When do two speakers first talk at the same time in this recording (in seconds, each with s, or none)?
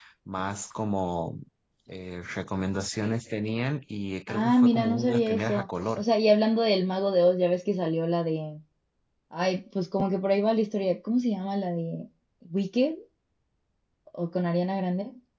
4.3 s